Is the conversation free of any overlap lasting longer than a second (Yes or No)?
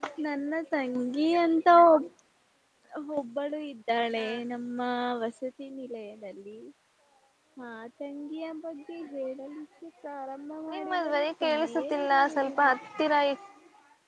No